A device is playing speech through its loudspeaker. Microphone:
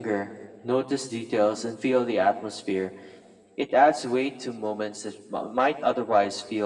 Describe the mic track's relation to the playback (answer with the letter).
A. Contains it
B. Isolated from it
A